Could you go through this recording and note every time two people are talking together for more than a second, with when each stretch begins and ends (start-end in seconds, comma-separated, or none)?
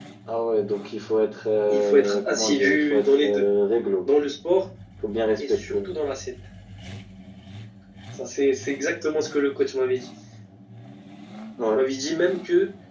1.7-3.4